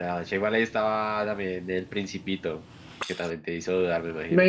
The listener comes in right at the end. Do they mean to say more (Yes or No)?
Yes